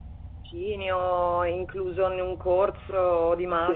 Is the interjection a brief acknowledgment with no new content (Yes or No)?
No